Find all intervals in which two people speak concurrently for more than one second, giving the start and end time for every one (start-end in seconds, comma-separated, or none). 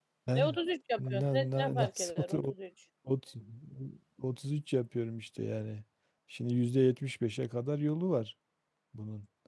1.0-2.5